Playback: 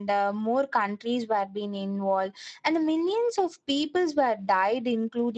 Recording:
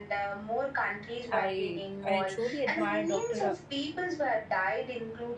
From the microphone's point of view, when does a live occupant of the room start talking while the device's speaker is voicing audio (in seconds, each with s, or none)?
1.3 s